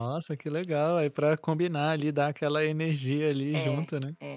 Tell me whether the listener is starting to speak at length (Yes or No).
Yes